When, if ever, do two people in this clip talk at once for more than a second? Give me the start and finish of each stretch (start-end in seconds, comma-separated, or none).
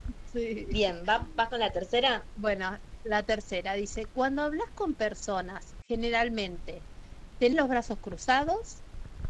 none